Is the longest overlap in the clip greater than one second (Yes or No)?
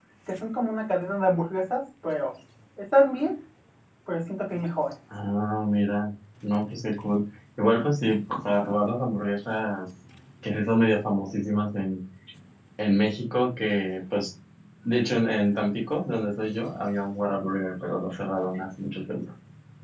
No